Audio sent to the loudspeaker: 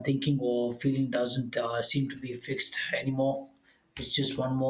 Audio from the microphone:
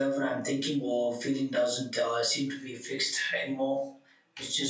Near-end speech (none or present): none